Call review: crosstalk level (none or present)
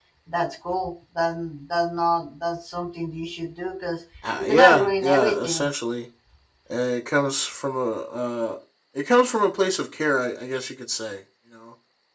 present